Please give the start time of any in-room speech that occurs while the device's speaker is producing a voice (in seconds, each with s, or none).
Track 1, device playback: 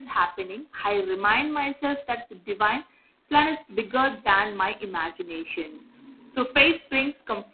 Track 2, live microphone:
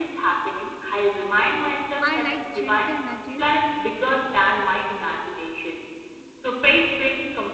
2.0 s